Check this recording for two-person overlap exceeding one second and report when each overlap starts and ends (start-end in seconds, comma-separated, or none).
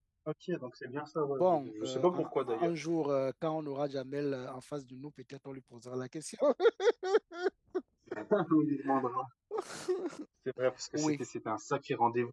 1.3-2.7